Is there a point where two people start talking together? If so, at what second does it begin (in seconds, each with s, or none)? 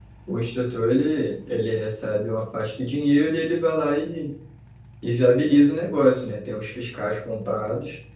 none